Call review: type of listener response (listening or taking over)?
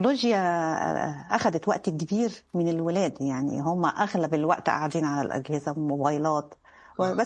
listening